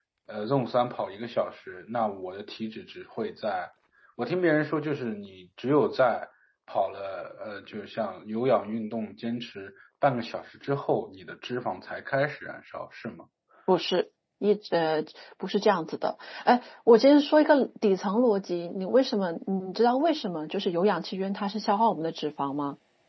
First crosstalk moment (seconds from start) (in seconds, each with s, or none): none